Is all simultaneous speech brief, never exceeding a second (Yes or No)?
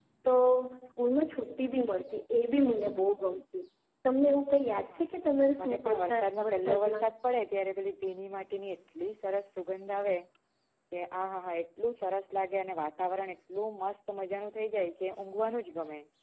No